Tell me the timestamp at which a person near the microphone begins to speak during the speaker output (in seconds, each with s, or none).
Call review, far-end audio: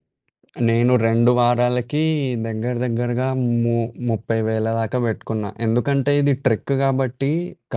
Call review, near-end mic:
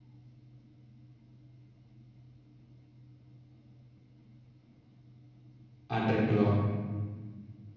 5.9 s